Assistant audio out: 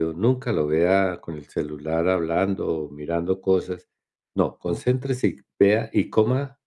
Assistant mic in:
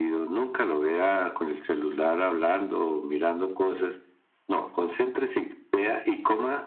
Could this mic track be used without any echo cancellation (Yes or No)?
No